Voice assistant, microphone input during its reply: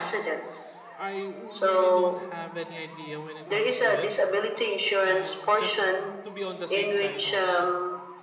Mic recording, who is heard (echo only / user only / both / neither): both